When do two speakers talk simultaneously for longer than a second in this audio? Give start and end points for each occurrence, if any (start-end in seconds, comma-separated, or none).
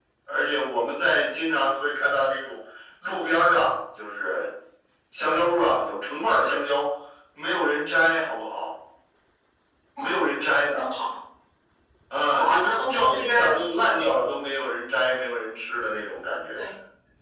12.3-14.0